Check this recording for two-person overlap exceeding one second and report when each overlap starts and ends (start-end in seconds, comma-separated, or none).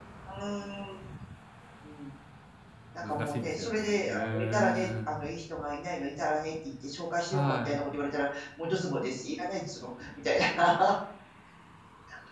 3.0-5.2